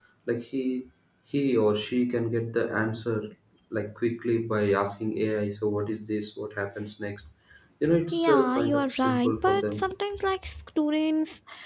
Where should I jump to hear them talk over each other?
8.1 s

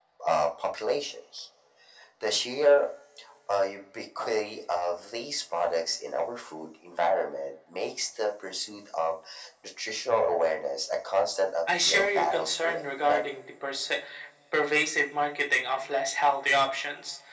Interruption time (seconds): 11.7 s

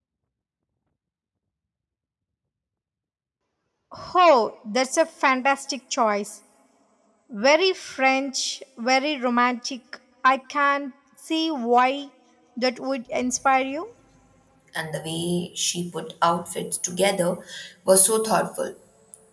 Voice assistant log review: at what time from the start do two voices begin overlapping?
none

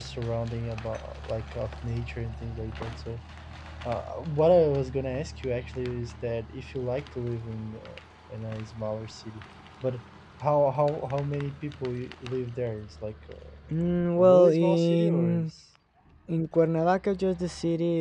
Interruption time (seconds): 14.2 s

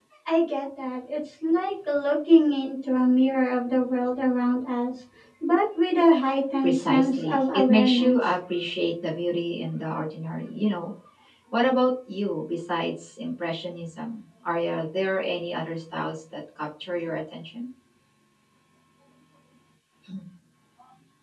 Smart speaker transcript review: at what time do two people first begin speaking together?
6.6 s

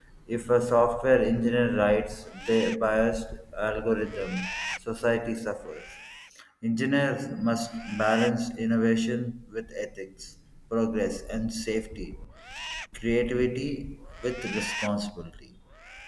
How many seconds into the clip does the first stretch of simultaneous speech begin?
none

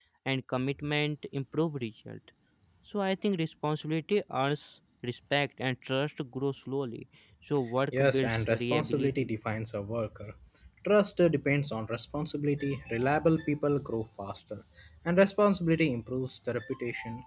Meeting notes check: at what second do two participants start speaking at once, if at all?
7.9 s

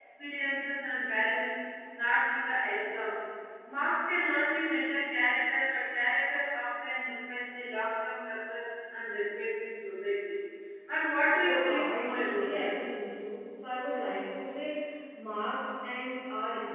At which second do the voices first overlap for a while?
11.4 s

